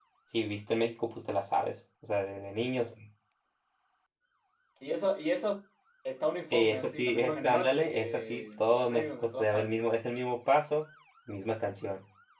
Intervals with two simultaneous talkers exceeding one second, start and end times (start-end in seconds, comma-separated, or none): 6.5-9.7